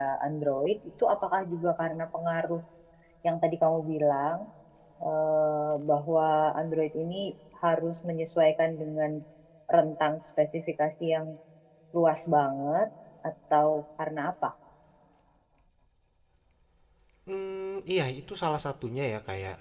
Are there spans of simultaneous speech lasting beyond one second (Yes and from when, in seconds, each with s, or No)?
No